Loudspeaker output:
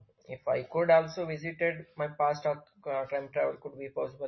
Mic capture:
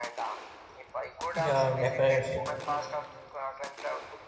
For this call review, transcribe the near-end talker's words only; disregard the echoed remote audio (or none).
Yeah, definitely.